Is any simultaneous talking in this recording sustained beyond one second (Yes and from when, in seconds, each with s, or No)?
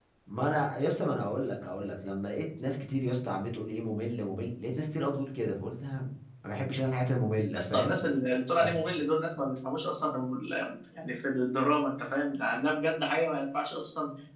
No